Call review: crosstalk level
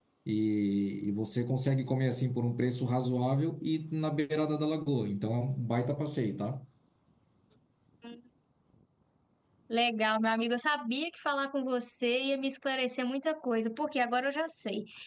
none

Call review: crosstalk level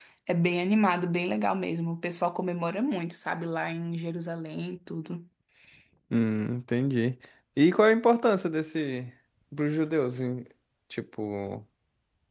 none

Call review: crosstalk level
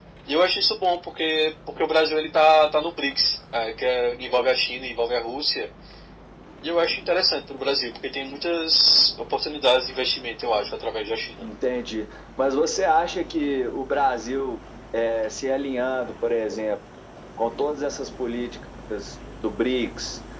none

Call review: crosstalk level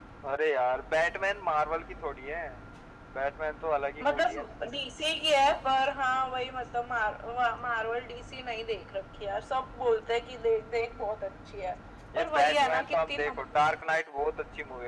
present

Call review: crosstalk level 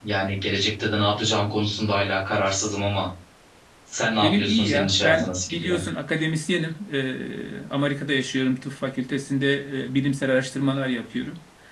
present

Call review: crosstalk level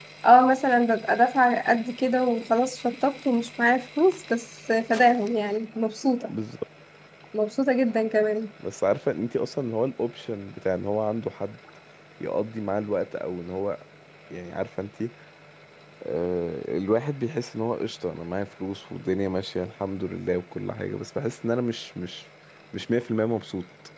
none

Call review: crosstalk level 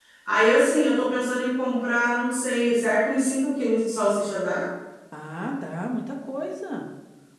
none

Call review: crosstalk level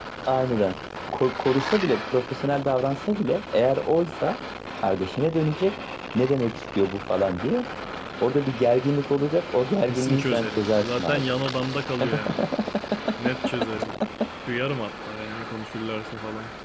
present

